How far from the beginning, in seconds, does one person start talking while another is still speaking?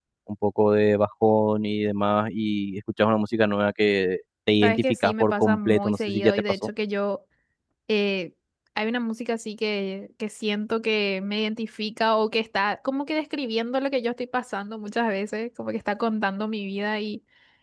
5 s

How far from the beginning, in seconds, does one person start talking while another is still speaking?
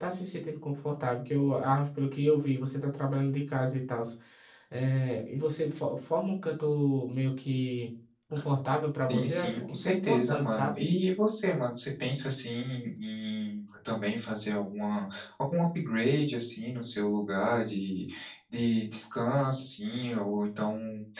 9 s

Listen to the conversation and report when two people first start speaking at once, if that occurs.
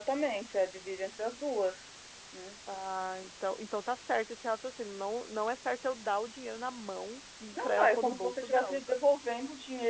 8 s

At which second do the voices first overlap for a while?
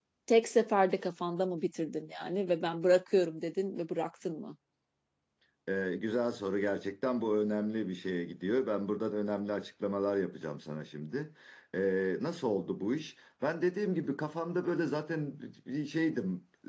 none

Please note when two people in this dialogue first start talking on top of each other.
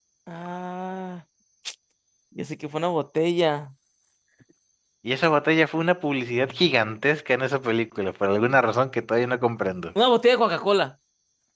none

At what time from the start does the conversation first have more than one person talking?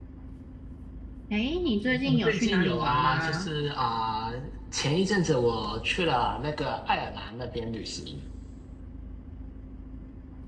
2 s

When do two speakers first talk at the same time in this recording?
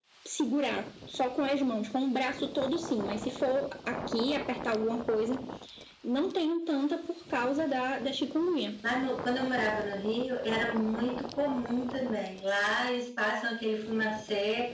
none

